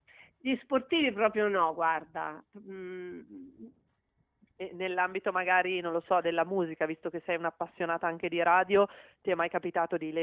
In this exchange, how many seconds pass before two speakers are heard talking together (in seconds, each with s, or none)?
none